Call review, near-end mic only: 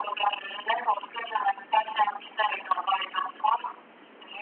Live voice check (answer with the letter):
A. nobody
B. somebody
A